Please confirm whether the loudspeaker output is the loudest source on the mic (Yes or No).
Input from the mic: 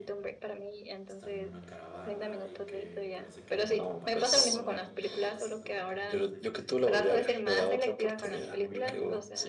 Yes